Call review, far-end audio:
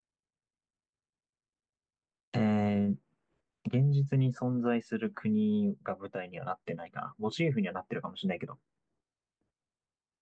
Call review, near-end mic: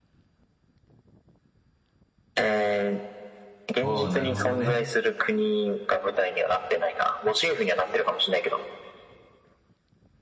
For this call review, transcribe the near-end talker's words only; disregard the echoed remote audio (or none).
おー、なるほどね。